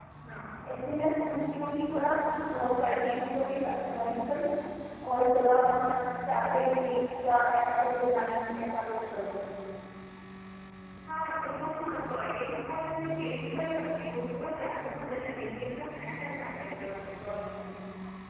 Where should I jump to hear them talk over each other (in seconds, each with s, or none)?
none